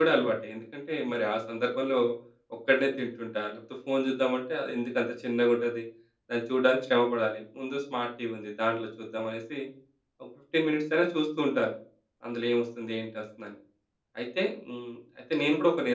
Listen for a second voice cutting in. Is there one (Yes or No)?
No